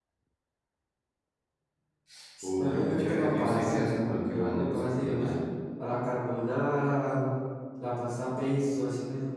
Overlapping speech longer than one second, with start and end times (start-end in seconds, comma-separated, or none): 2.6-5.3